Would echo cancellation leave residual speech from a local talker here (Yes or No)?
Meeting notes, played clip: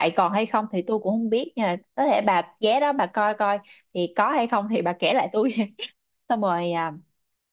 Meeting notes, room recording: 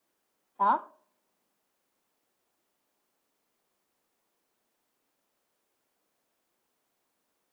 Yes